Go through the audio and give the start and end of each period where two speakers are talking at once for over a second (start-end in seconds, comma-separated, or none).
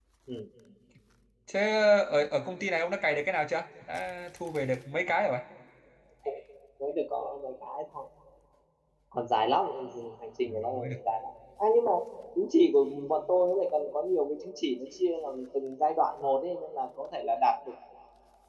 none